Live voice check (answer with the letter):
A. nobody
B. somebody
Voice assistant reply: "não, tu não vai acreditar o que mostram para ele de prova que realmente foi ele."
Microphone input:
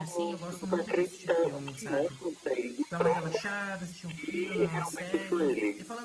B